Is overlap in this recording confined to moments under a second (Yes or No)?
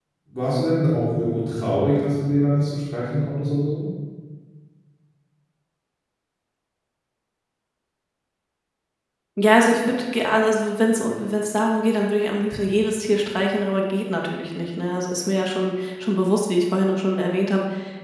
Yes